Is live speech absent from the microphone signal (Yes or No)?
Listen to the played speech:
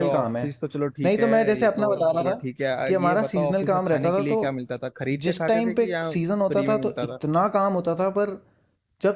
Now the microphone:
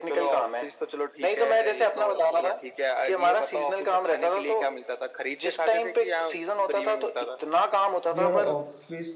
No